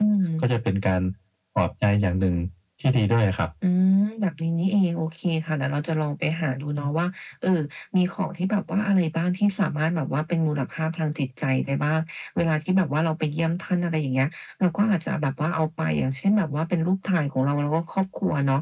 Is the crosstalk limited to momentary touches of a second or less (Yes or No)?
Yes